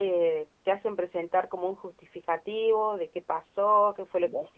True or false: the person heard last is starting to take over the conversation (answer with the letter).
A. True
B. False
B